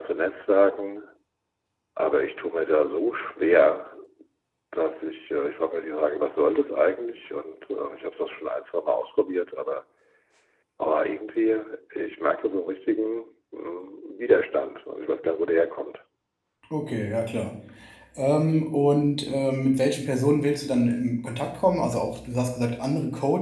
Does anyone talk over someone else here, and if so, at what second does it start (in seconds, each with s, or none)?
none